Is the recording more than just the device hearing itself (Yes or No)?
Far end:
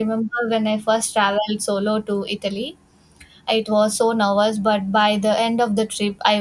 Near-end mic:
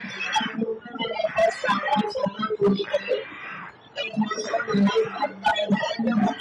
No